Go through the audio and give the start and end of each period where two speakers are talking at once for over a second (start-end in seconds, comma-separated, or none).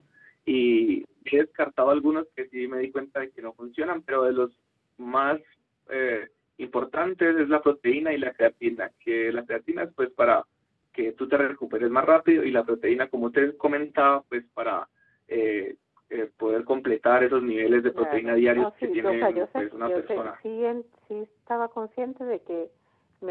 17.9-20.4